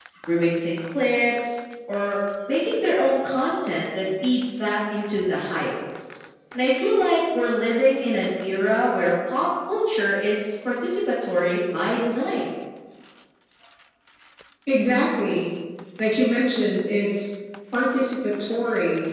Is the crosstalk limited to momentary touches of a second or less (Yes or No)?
Yes